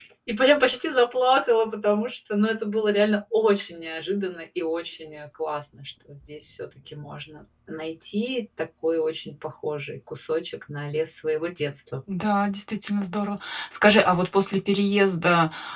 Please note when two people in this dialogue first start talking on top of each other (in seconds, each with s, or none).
none